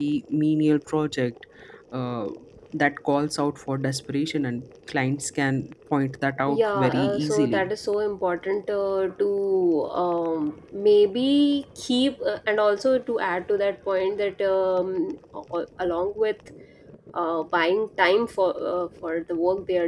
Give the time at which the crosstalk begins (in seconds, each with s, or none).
6.5 s